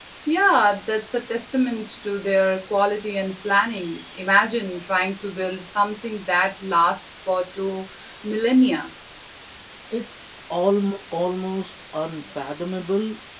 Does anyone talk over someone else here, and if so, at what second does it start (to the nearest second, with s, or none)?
none